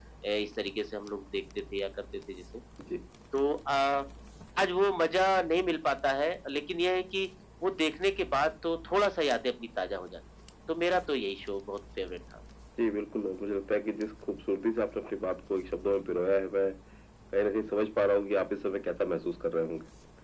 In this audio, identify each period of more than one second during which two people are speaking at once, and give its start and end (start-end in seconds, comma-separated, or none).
none